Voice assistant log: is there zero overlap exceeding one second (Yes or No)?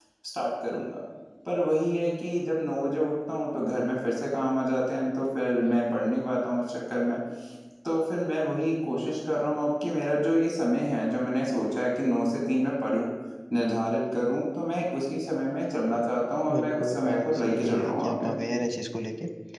No